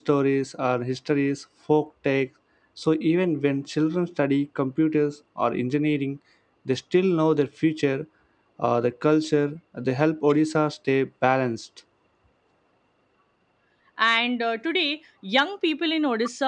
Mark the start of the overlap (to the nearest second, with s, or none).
none